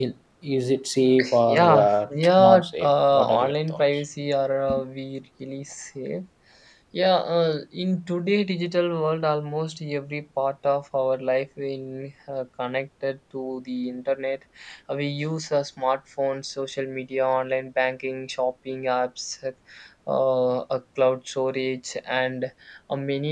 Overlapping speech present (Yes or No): Yes